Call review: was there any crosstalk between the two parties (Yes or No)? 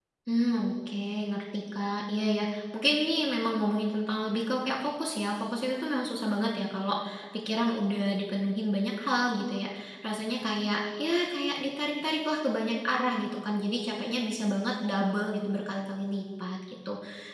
No